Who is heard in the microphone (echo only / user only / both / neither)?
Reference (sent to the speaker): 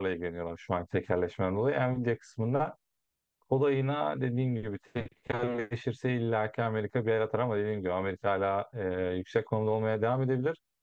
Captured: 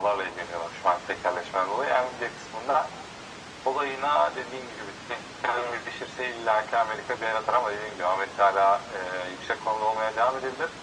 echo only